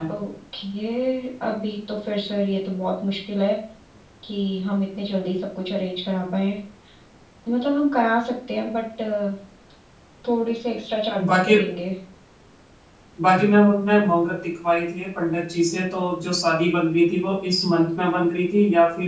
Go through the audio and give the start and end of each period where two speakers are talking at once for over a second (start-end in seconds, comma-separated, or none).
none